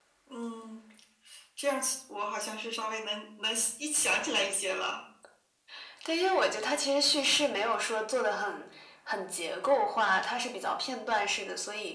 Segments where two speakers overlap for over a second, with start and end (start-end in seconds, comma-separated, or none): none